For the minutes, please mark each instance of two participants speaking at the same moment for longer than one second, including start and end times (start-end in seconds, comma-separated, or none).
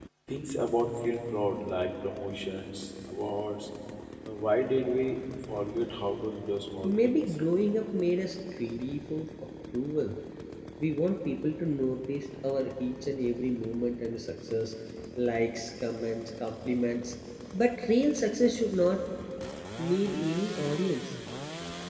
none